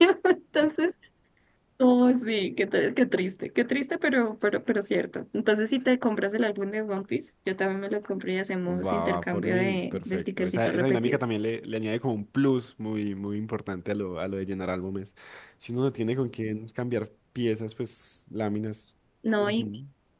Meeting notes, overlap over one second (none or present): present